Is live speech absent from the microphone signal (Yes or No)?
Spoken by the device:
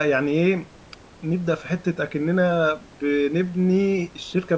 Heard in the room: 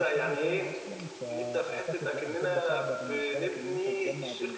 No